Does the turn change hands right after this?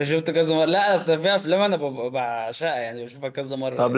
Yes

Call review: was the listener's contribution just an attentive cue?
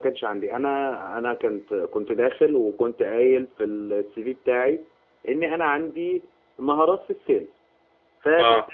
Yes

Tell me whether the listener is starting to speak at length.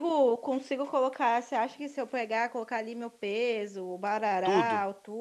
No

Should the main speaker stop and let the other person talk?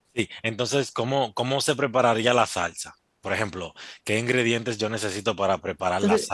No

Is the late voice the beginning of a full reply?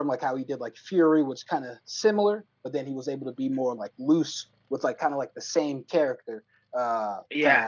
No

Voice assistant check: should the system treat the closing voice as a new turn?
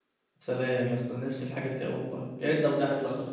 Yes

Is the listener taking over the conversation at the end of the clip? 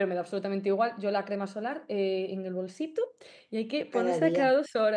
No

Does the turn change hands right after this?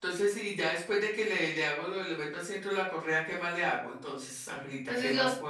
Yes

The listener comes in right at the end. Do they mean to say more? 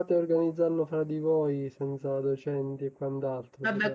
Yes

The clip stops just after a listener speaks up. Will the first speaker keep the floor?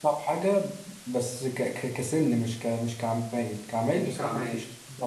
Yes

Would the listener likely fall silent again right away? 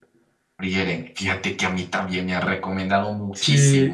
No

